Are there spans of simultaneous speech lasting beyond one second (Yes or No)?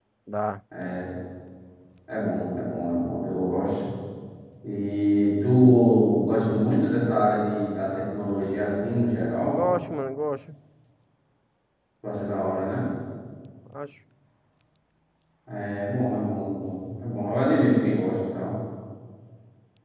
No